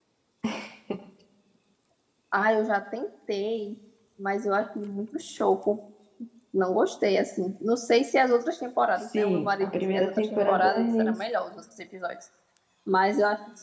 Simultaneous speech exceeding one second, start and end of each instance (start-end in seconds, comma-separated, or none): 9.2-11.1